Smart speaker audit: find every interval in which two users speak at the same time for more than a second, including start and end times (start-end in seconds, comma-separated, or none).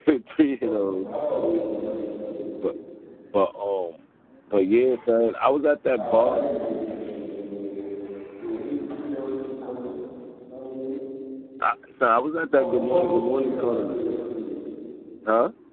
12.6-14.0